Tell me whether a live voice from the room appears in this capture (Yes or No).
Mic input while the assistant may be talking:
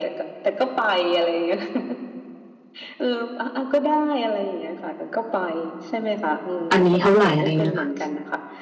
Yes